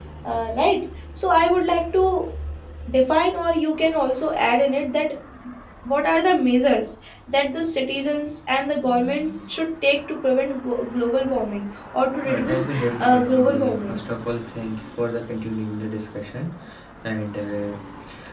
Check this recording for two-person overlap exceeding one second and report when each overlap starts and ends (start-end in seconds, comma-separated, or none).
12.2-14.0